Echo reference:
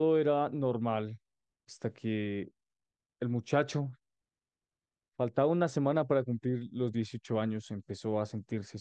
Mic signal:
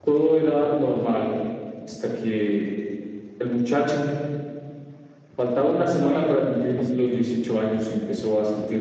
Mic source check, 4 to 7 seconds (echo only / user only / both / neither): both